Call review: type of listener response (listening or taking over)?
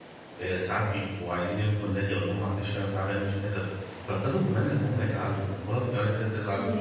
listening